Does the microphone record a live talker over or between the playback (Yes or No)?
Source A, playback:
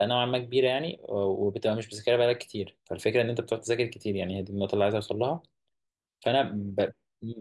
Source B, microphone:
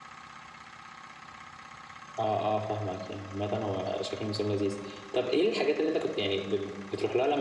Yes